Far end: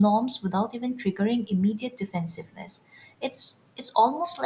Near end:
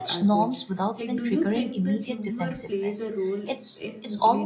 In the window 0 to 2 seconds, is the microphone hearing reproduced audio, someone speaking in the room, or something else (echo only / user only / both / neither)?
both